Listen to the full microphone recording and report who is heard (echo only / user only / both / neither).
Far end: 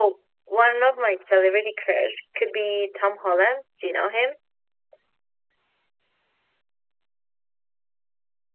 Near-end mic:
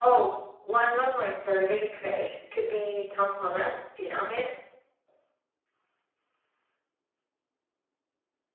echo only